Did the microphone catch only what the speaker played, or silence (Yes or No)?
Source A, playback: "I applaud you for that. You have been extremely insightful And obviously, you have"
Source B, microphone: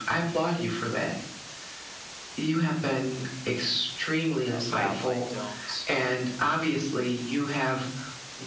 No